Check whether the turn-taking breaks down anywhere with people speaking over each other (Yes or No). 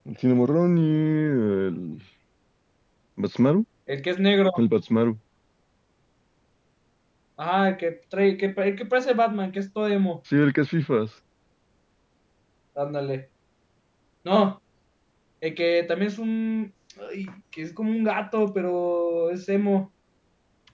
No